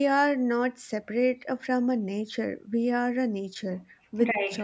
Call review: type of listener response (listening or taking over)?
listening